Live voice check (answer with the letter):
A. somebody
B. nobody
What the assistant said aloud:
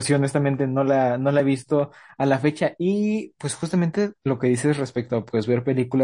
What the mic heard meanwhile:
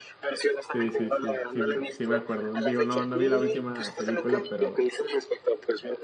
A